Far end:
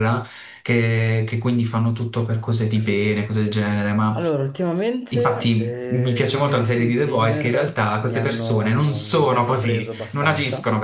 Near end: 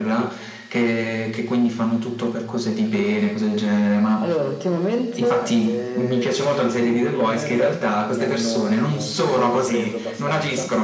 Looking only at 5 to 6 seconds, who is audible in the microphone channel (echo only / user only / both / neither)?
echo only